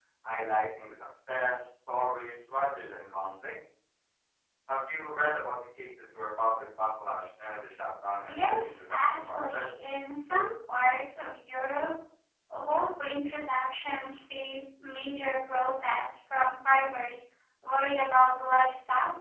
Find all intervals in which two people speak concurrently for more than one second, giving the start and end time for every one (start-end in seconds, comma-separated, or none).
8.2-9.6